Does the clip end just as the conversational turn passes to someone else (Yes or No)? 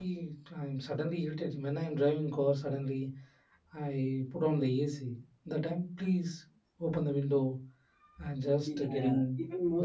Yes